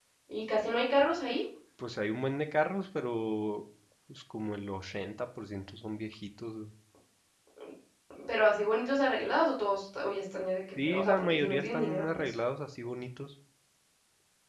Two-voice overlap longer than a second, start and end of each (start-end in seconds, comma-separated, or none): 10.8-12.3